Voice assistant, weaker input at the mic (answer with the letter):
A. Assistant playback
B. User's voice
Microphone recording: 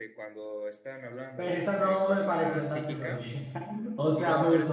A